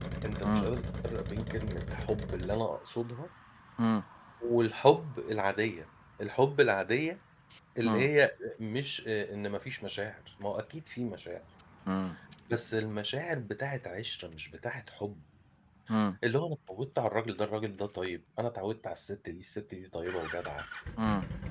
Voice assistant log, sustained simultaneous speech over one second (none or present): none